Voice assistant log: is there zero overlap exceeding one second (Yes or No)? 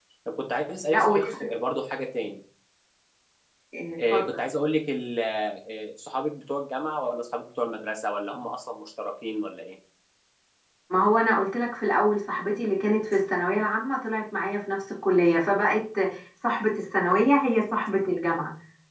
Yes